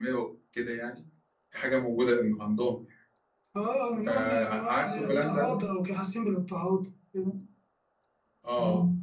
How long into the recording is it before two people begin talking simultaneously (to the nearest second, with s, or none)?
4 s